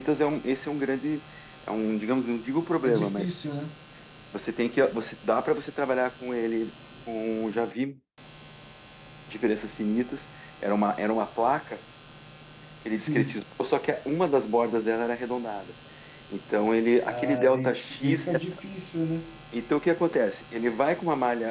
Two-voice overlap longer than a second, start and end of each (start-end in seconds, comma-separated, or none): 17.1-18.3